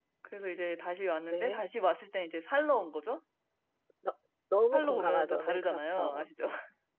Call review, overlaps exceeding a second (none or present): present